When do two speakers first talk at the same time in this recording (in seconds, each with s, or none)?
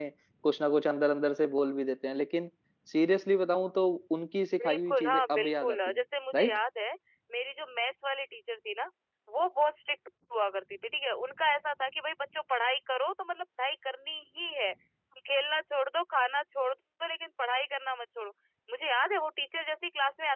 4.5 s